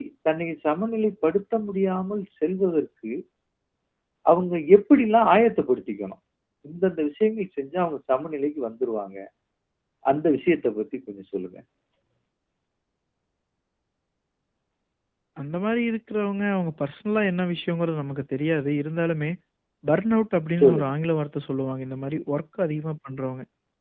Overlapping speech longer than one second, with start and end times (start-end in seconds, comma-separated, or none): none